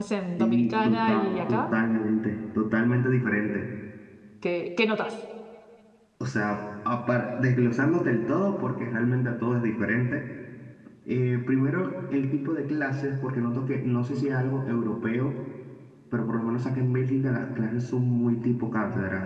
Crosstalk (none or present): present